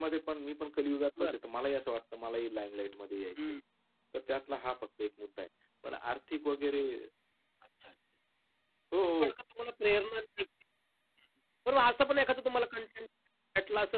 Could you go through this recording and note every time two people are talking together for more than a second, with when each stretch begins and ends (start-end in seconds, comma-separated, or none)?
none